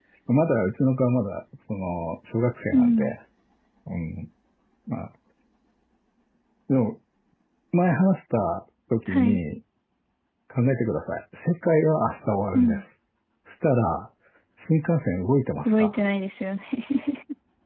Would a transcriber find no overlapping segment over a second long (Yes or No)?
Yes